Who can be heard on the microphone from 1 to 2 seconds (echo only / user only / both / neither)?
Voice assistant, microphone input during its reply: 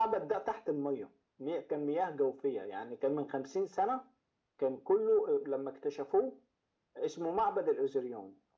echo only